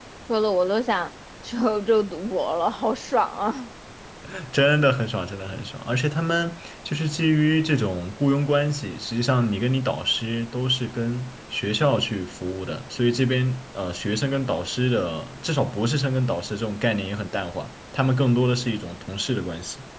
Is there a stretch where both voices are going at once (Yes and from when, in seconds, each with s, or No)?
No